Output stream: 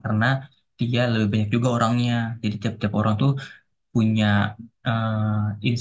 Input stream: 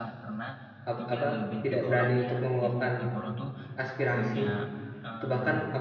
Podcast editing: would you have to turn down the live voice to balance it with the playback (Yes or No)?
Yes